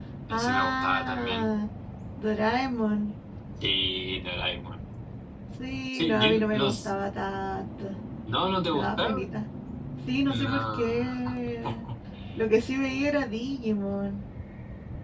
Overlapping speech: Yes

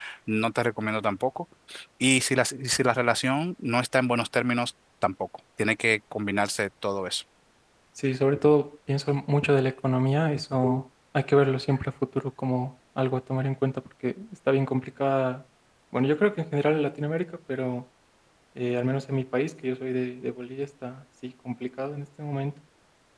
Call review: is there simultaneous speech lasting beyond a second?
No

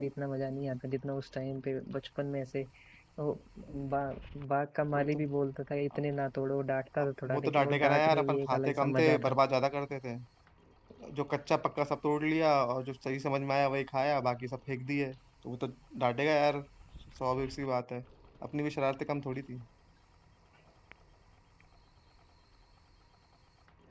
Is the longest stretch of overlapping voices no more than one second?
No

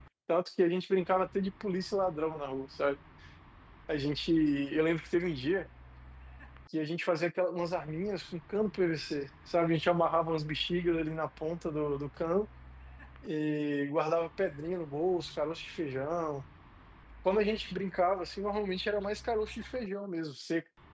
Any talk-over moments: No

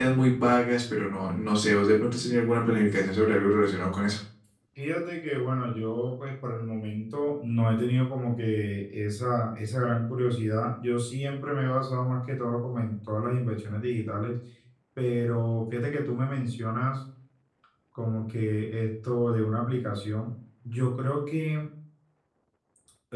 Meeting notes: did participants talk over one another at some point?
No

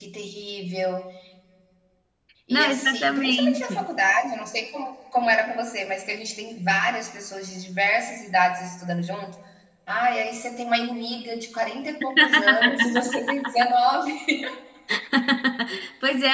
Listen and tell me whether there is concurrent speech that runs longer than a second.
Yes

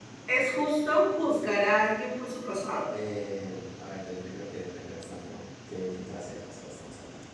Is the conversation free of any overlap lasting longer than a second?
Yes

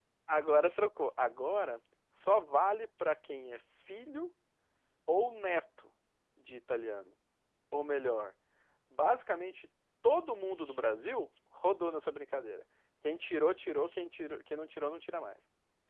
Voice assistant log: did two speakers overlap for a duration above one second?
No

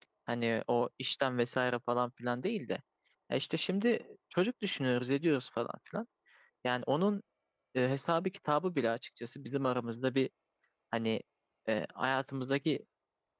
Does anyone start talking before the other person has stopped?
No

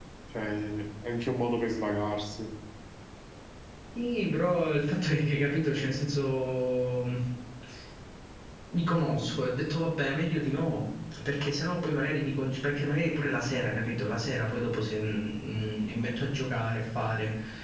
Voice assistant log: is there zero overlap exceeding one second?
Yes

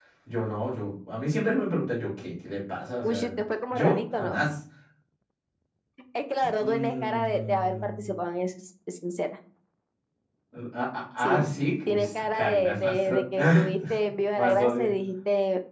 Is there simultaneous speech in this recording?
Yes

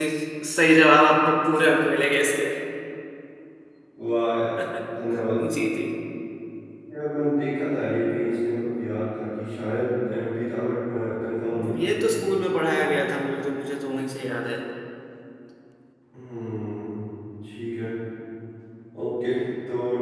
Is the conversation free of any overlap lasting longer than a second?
Yes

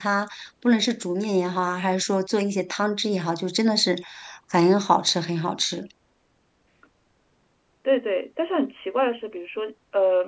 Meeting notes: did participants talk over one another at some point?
No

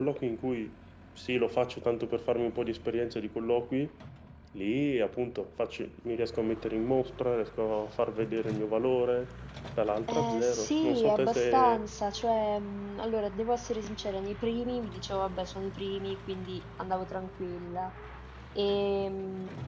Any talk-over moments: Yes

